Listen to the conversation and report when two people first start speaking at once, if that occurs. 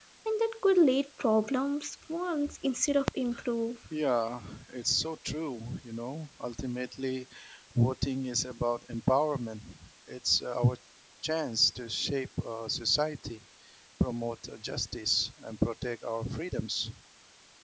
none

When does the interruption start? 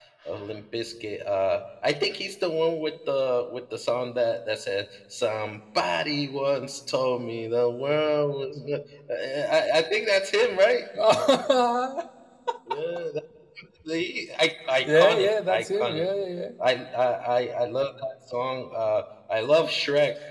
15 s

